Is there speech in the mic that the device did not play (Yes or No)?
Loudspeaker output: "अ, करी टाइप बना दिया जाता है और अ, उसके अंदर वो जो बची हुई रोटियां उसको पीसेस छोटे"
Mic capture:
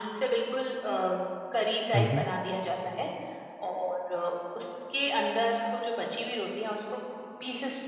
Yes